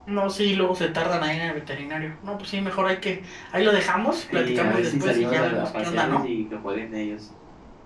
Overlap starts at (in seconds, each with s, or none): 4.3 s